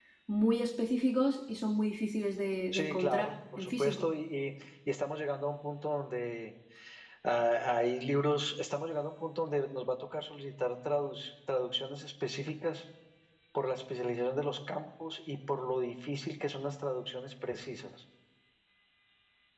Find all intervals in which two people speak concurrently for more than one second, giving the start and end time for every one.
2.7-4.1

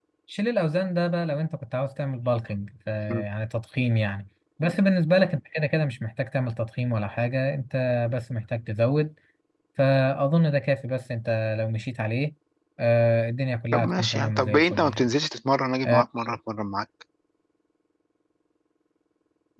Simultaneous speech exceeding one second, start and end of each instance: 13.7-15.1

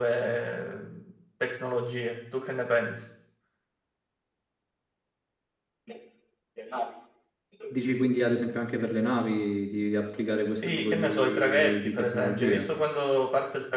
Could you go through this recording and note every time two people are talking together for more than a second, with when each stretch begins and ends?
10.6-12.7

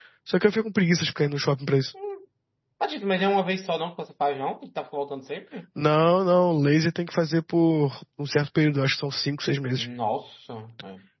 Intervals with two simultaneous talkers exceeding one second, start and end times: none

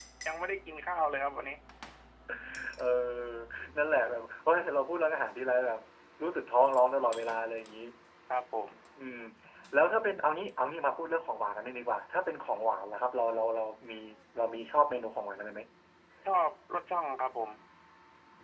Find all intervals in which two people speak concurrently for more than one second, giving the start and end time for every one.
none

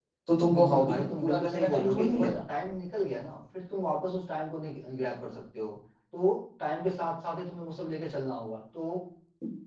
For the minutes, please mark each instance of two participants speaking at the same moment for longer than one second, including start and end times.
0.5-2.3

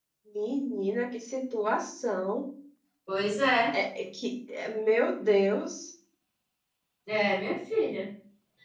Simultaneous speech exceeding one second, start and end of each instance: none

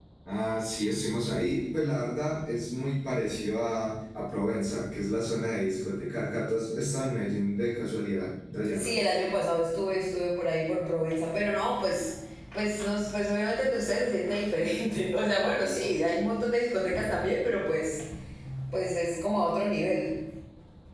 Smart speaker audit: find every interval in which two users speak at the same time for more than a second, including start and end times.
none

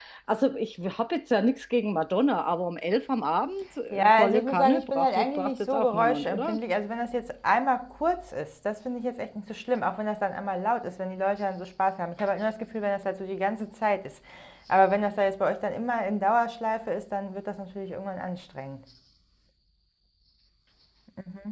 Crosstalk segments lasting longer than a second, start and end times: 3.9-6.6

